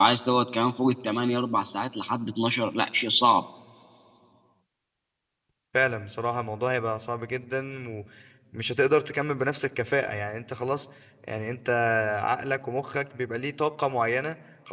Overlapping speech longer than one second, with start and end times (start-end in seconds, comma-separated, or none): none